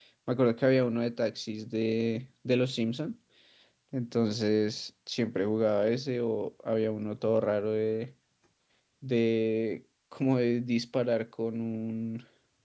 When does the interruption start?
none

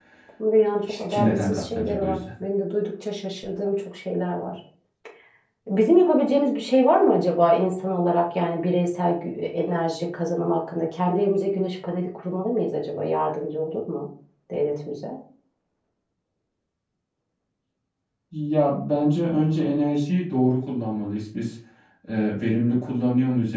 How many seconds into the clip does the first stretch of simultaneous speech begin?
0.9 s

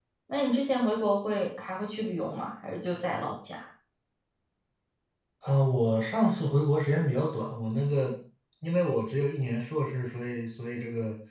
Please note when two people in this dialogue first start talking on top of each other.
none

